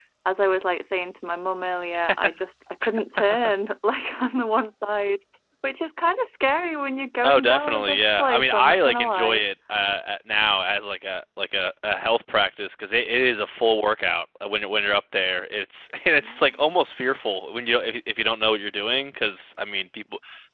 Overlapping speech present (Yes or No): Yes